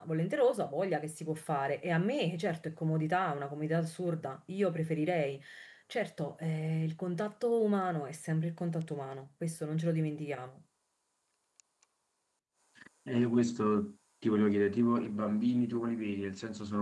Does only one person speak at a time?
Yes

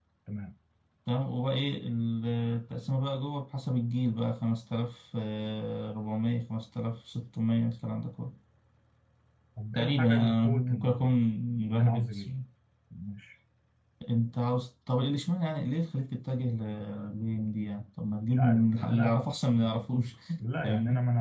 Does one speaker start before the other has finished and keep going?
Yes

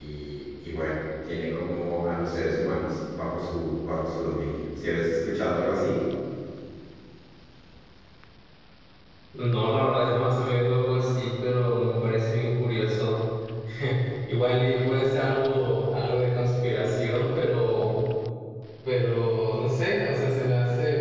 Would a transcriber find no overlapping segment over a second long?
Yes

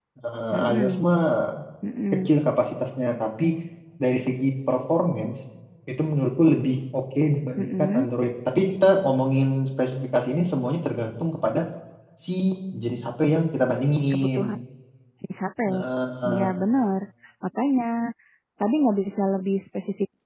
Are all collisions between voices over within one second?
Yes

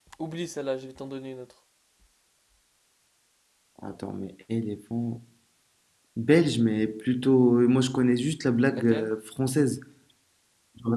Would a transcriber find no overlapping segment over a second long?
Yes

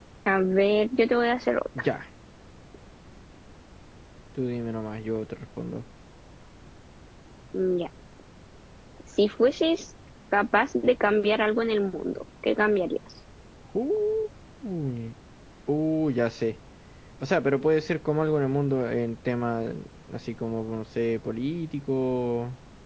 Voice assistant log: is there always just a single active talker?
Yes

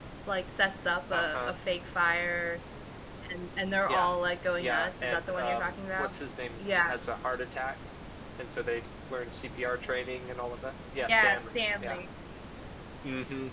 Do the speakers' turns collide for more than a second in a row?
Yes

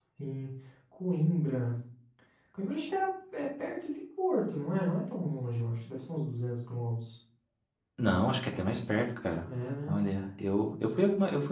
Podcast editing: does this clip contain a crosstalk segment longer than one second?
No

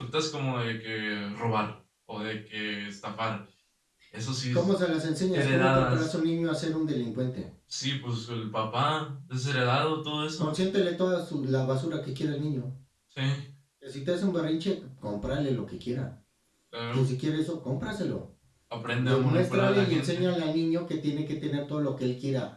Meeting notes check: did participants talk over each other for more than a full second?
Yes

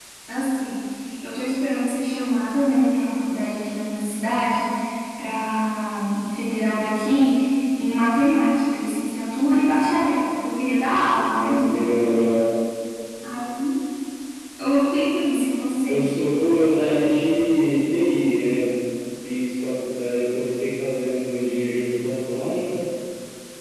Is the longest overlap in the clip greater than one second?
No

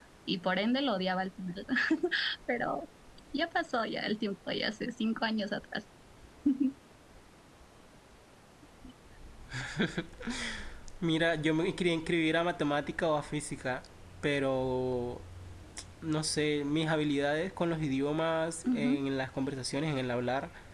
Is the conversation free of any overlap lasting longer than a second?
Yes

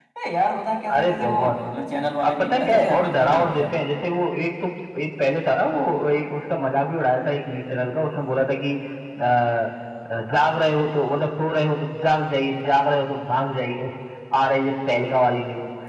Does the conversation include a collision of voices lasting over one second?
Yes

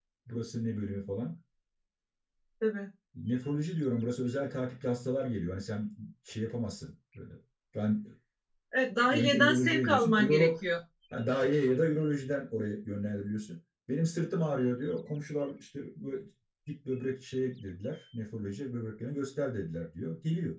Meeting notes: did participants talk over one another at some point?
Yes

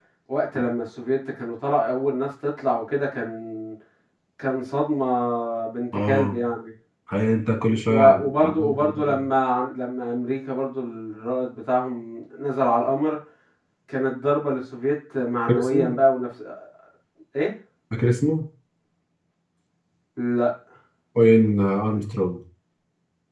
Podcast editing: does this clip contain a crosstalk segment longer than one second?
Yes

